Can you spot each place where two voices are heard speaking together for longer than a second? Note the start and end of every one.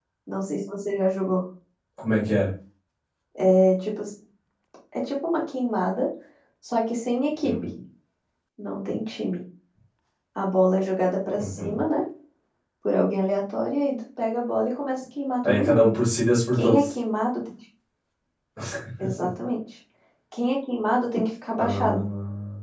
none

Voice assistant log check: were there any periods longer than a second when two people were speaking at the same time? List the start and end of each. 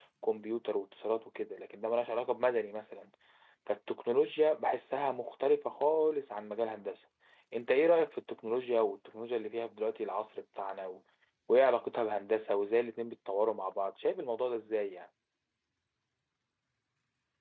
none

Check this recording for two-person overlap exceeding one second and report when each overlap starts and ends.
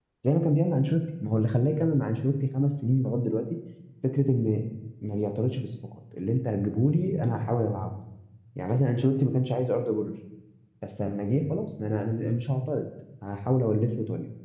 none

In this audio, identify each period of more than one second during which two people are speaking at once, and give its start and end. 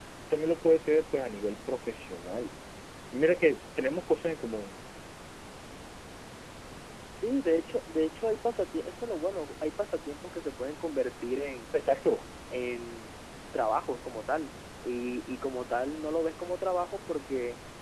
none

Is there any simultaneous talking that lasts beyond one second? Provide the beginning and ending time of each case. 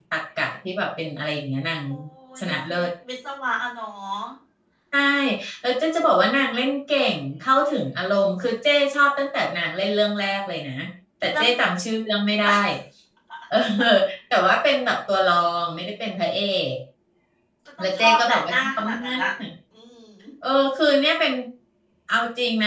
17.8-19.2

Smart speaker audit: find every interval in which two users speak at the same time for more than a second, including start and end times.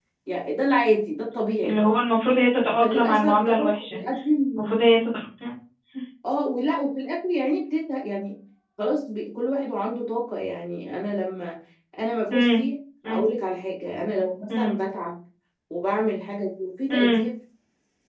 2.8-4.0

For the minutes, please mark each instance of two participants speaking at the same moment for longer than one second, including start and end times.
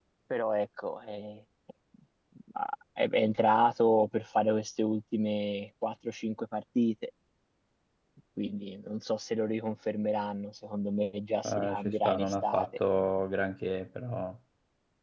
11.4-12.7

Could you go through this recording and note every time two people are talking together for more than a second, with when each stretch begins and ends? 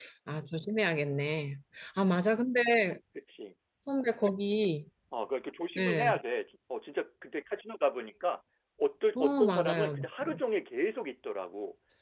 9.2-10.4

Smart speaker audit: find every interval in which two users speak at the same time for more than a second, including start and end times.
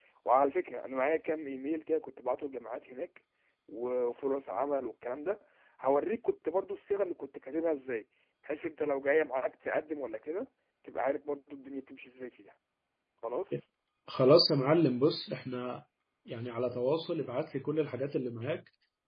none

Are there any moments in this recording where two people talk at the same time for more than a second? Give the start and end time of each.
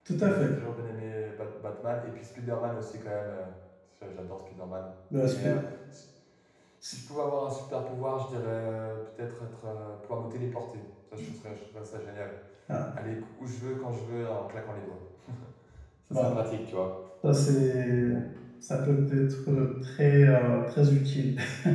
none

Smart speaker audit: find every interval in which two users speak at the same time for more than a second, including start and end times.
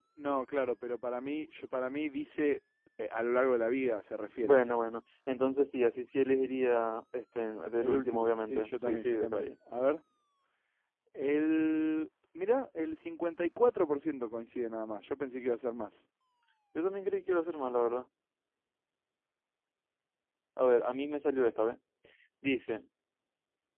7.8-9.5

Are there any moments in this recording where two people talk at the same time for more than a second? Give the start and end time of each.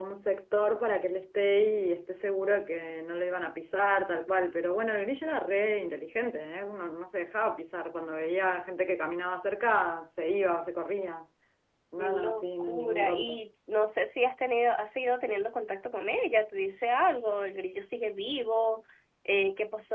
12.0-13.4

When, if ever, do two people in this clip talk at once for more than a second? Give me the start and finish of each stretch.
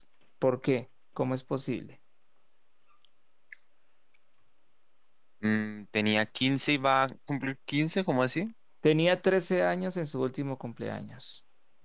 none

